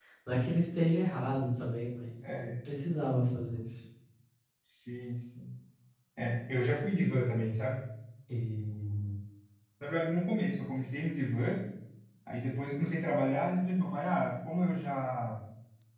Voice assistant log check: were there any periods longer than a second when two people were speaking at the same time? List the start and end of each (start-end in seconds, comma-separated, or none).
none